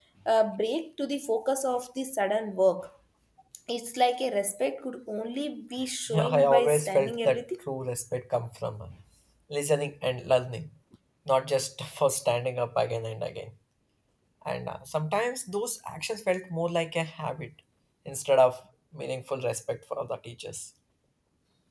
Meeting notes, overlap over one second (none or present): present